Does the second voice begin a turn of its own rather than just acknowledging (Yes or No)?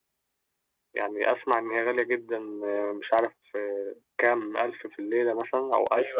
Yes